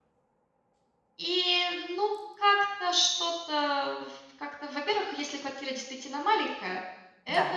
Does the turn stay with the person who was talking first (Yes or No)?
Yes